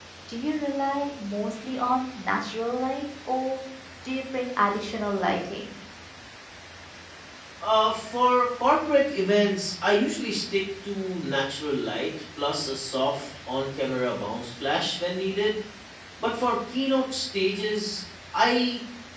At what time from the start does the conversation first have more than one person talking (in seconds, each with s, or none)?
none